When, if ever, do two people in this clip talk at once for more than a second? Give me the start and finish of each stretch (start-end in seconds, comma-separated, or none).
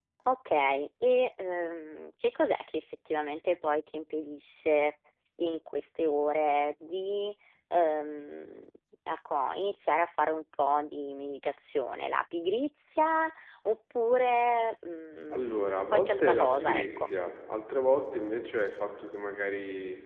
15.3-17.1